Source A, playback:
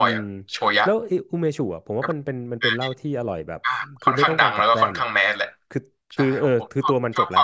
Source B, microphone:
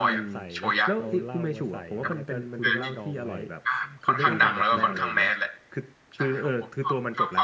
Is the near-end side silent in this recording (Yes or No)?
No